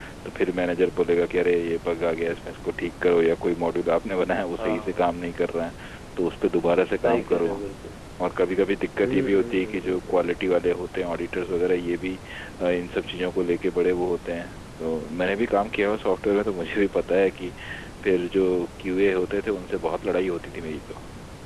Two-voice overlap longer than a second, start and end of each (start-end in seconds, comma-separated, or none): 9.0-10.4